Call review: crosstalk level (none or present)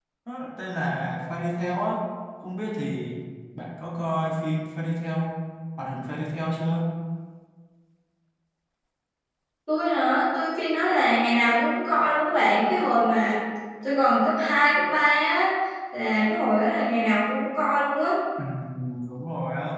none